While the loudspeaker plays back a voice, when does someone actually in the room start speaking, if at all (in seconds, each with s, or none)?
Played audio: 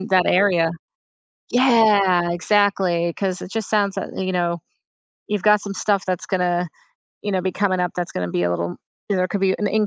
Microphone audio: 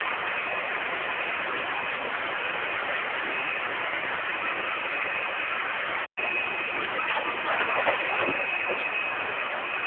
none